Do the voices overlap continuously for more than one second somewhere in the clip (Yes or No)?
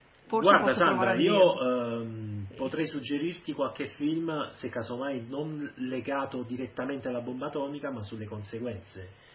Yes